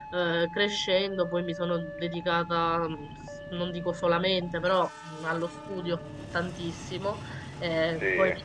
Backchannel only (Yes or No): Yes